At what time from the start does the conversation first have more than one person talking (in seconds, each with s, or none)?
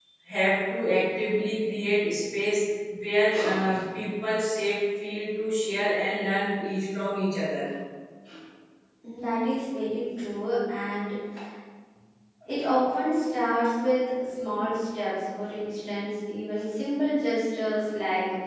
none